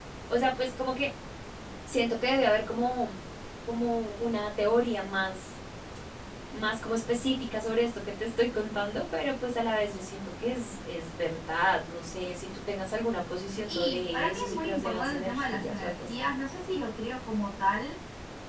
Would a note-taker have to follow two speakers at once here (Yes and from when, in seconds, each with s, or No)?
Yes, from 13.7 s